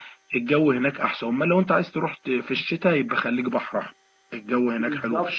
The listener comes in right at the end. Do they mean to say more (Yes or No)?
Yes